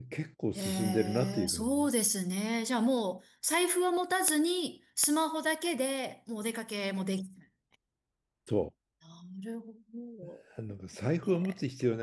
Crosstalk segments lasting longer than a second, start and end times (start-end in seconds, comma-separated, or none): 0.6-1.9